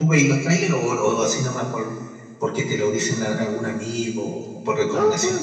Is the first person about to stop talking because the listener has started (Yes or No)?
Yes